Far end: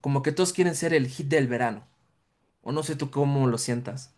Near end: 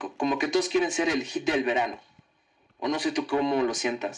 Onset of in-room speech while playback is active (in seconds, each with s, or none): none